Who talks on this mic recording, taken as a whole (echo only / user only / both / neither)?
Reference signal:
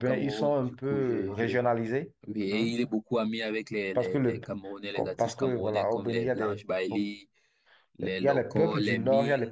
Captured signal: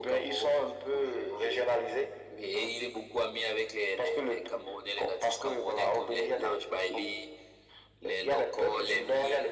echo only